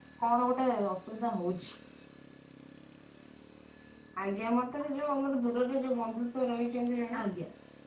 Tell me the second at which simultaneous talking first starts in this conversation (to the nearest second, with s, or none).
none